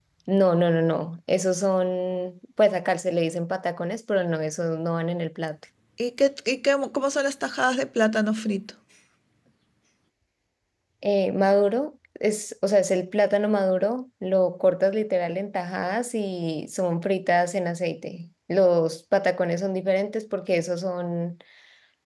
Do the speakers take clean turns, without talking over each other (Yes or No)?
Yes